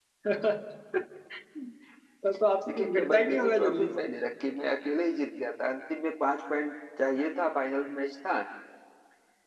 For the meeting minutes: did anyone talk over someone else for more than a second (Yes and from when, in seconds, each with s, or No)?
Yes, from 2.7 s